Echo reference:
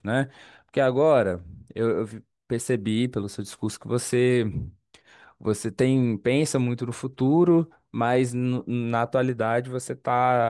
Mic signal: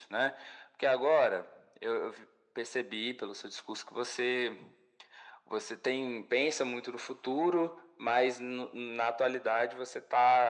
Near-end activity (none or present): none